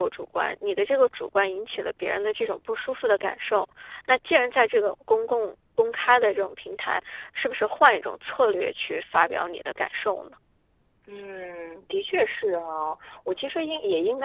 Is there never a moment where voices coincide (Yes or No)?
Yes